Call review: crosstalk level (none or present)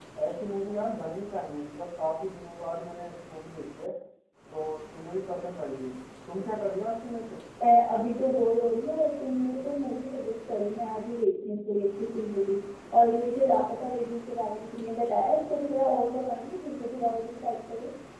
none